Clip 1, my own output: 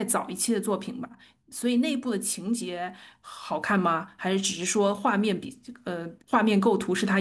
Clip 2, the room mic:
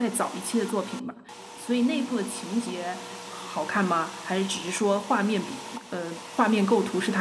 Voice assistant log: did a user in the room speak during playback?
No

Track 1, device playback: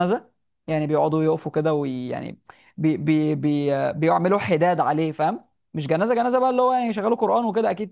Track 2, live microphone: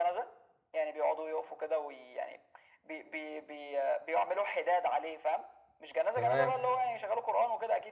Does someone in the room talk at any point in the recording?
Yes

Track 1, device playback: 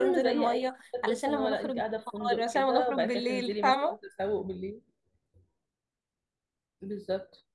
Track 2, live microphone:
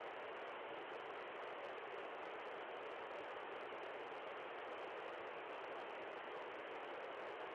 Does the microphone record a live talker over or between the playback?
No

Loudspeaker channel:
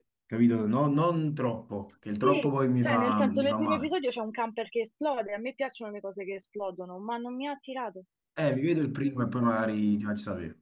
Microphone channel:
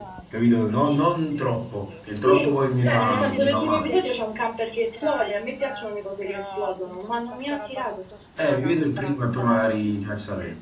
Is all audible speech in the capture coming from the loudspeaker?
No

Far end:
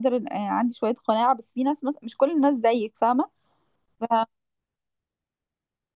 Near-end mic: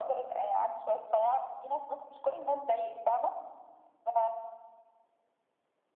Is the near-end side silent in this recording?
Yes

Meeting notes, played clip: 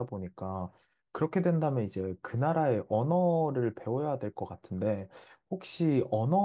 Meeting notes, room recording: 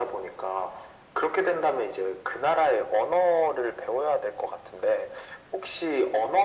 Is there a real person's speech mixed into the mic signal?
No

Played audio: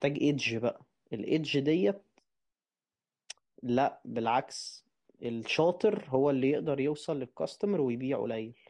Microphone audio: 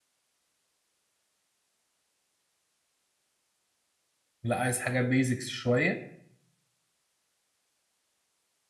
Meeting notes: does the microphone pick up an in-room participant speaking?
Yes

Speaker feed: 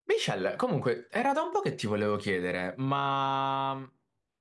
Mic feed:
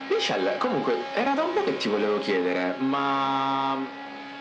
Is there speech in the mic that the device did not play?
No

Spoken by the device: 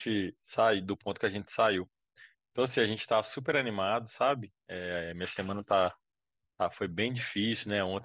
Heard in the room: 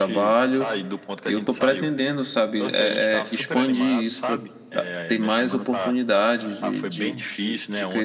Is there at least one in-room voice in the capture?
Yes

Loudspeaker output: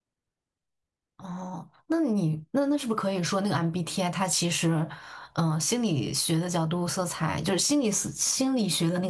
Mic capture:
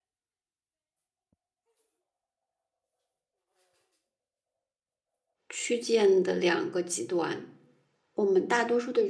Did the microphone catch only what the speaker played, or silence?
No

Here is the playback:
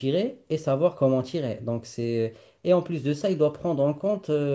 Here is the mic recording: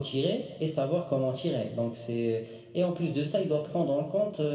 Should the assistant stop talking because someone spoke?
No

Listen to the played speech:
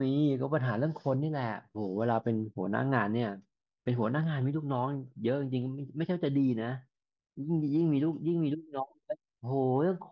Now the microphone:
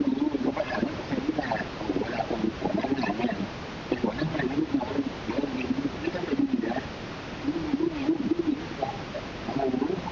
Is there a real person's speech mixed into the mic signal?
No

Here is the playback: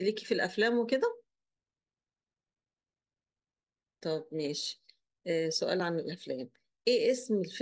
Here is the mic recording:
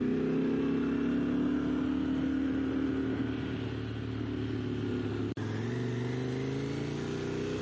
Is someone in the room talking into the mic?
No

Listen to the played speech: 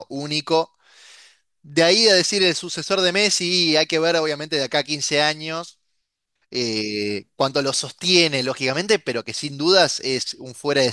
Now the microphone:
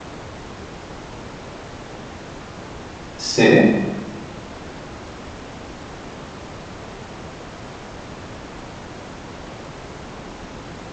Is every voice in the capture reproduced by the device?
No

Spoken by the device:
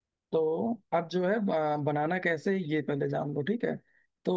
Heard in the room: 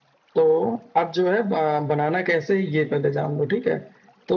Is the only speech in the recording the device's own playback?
Yes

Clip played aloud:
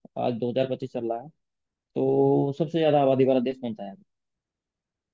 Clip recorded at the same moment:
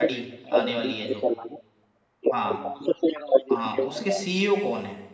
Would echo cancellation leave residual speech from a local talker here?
Yes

